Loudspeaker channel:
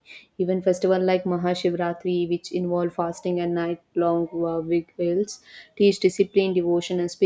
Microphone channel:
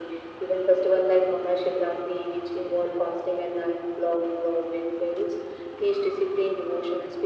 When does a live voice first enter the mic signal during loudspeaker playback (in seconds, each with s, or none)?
none